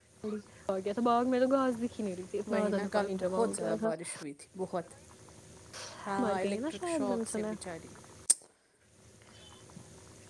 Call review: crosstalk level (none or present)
present